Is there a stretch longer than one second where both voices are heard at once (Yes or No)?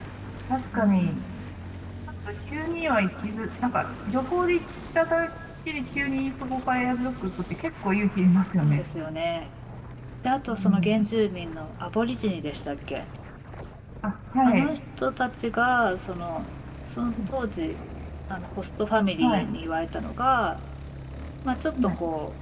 No